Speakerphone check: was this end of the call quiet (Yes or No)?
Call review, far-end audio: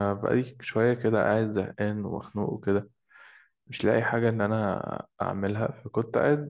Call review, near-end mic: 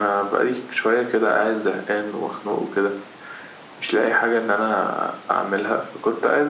Yes